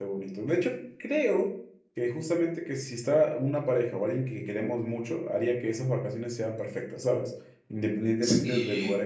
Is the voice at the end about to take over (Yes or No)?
No